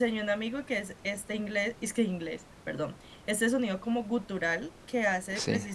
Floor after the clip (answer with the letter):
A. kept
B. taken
A